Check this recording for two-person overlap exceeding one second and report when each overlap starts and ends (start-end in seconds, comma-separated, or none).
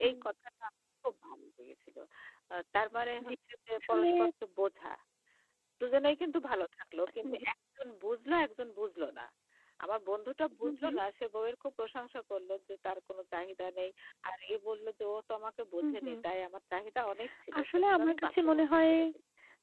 17.6-18.9